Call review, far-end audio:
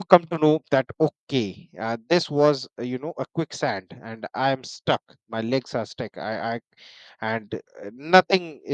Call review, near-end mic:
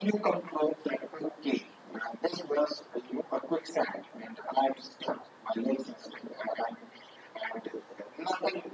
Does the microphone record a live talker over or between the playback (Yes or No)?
No